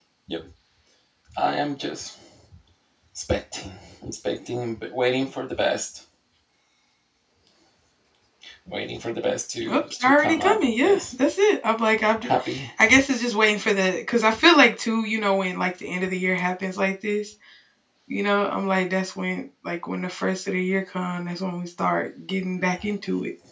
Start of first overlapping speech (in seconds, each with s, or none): 9.7 s